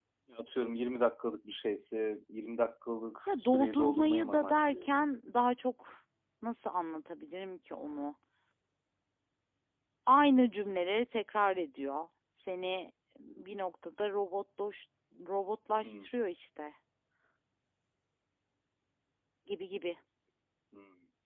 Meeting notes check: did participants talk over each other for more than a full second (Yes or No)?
Yes